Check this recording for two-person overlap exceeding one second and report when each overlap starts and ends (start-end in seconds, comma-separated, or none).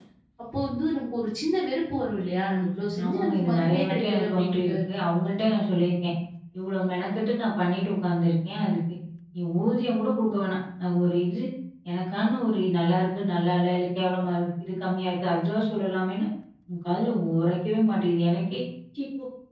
3.0-4.7